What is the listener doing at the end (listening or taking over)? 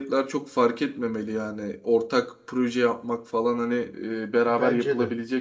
listening